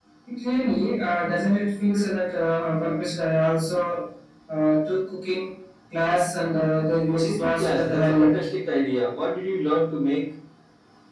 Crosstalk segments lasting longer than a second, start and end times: 7.1-8.4

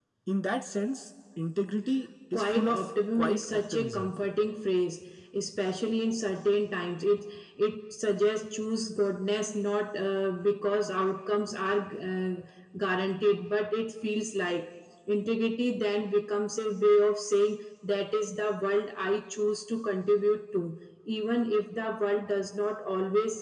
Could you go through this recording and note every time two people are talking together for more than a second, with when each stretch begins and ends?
2.3-4.1

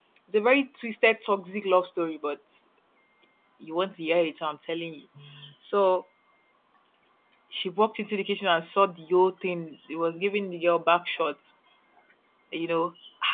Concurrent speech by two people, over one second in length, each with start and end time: none

